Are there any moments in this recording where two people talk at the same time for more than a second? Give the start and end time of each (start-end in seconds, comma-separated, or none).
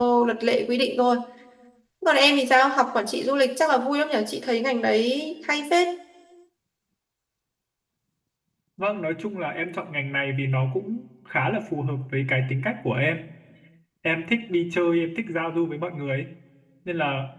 none